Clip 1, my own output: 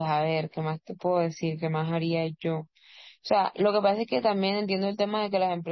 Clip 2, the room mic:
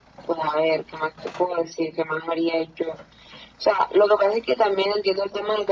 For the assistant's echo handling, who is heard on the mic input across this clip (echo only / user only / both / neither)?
echo only